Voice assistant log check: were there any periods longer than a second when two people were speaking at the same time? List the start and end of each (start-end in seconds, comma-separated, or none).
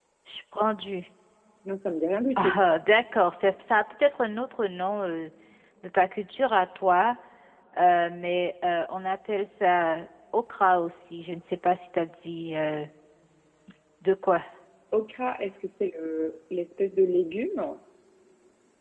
none